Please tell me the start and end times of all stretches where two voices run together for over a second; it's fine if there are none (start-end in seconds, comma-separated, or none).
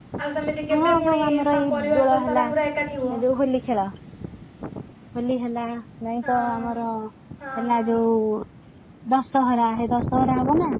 0.7-2.5